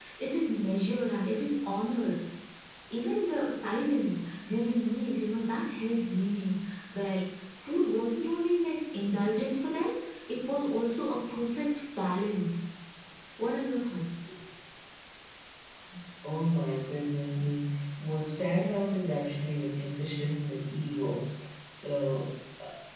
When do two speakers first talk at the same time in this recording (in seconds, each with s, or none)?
none